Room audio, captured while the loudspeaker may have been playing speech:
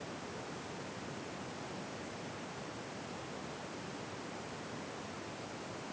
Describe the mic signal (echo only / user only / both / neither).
neither